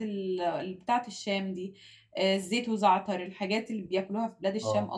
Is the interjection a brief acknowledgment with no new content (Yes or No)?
No